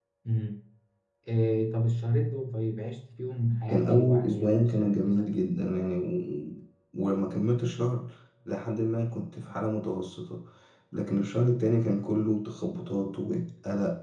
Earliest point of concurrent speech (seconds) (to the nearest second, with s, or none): 4 s